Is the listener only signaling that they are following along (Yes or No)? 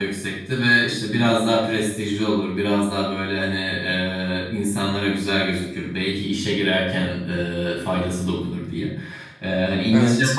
Yes